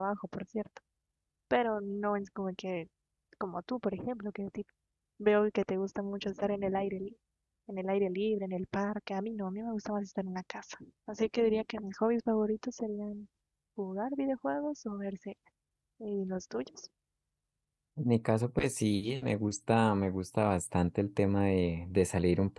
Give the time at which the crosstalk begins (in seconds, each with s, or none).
none